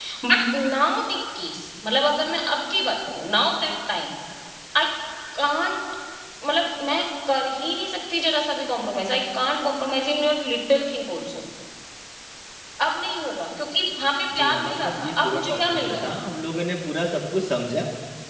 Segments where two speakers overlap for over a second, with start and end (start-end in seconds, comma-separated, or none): 14.4-16.0